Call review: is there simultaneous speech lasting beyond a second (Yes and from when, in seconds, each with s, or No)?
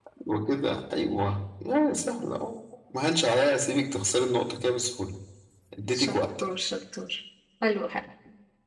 No